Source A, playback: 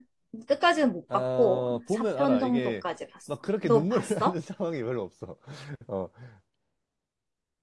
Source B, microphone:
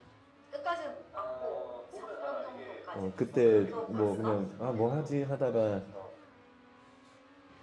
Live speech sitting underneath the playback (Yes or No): No